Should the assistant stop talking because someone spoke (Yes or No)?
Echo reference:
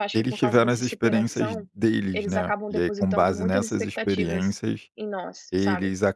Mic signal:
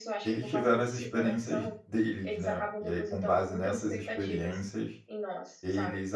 No